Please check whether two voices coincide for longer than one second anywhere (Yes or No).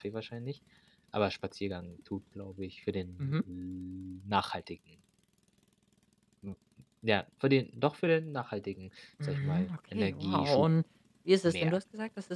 Yes